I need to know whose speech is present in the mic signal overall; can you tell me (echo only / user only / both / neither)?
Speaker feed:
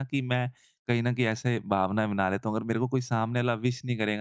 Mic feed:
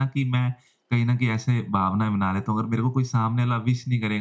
echo only